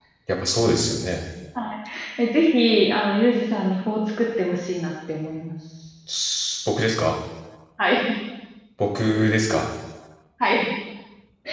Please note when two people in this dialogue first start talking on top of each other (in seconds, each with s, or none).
none